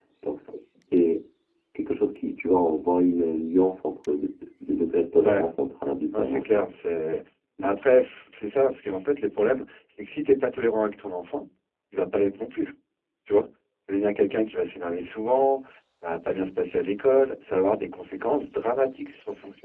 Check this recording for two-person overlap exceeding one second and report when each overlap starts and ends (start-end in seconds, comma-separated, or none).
none